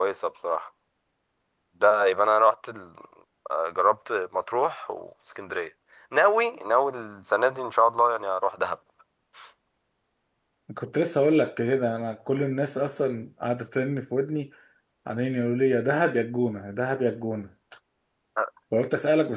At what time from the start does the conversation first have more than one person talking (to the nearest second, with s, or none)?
none